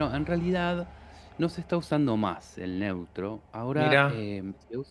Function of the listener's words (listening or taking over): listening